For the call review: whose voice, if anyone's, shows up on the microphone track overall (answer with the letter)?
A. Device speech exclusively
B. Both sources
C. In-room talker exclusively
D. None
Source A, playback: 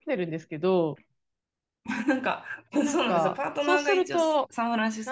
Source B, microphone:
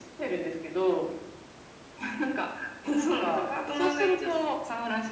A